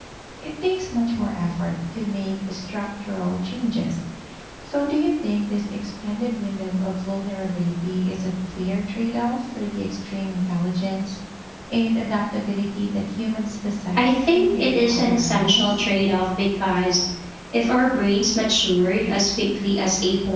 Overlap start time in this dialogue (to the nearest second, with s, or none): 14 s